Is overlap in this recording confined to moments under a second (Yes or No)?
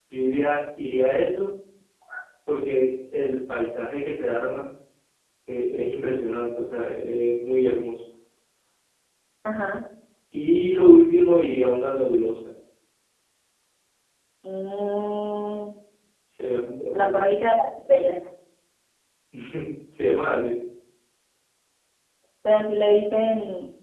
Yes